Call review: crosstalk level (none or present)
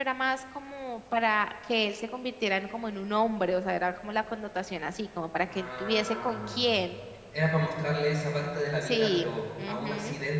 present